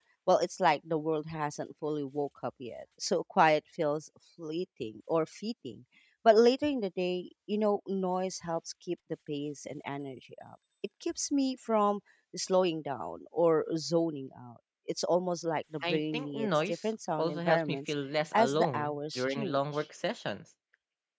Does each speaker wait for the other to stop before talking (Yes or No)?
No